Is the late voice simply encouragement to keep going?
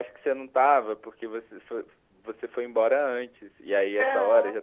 Yes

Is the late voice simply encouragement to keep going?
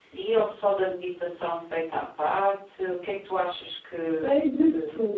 No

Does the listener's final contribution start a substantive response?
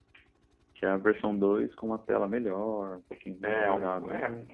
Yes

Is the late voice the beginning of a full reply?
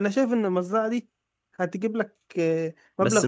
Yes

